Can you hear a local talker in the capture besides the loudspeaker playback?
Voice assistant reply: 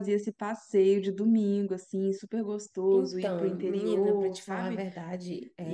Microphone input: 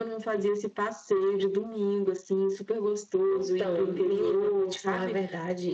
No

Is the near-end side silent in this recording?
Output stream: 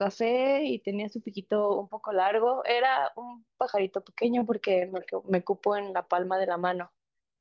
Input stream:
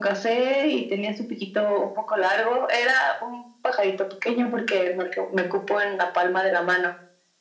Yes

